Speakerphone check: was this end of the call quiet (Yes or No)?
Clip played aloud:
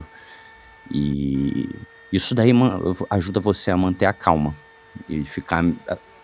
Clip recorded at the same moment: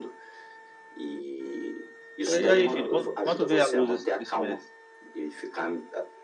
No